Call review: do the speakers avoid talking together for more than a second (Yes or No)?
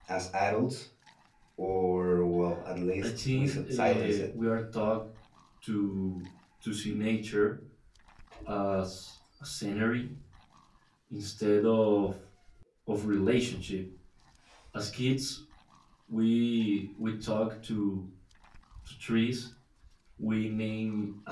No